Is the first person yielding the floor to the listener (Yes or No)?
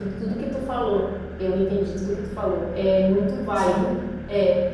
No